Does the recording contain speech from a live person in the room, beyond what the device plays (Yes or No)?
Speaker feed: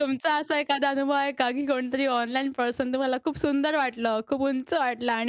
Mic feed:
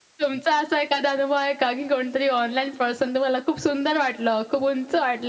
No